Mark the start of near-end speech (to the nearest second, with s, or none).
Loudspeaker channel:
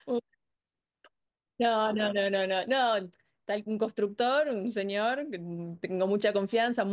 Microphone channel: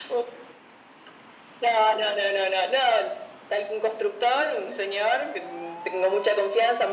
none